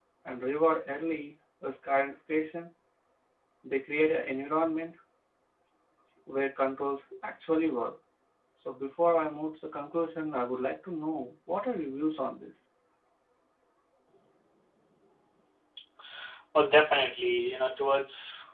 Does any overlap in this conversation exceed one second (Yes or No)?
No